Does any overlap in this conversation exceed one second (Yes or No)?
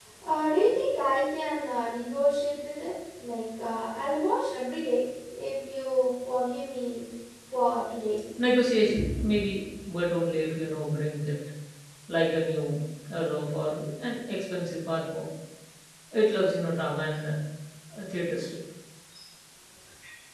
No